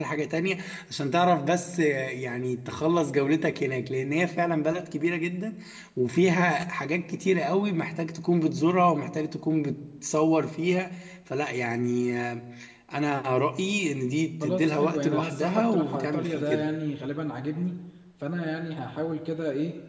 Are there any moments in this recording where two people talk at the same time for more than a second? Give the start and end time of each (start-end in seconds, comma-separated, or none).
14.4-16.6